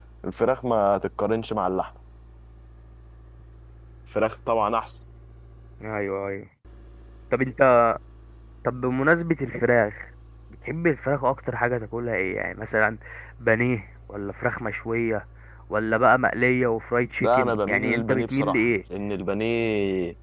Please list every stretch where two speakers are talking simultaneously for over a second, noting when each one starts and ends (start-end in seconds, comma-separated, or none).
17.2-18.6